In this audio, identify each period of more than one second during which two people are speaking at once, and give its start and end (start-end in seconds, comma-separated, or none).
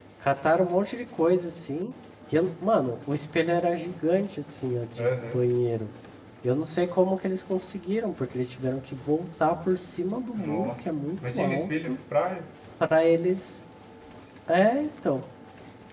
10.4-12.0